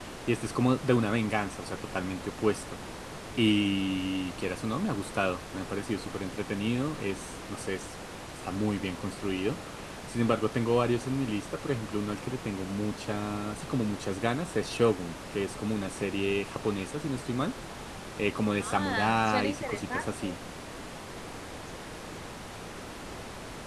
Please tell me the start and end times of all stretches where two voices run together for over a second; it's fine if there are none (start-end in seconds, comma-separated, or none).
18.6-20.4